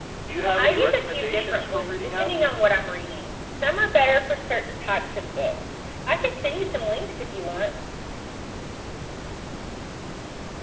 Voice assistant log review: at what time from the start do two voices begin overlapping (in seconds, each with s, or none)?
0.6 s